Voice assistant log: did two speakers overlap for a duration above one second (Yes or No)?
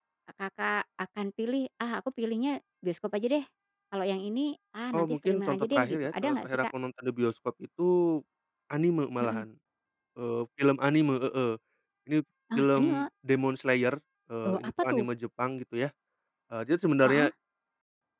Yes